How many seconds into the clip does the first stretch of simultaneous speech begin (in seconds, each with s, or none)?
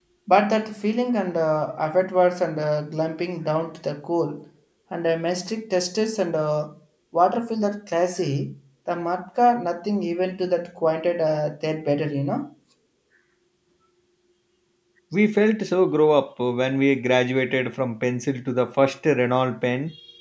none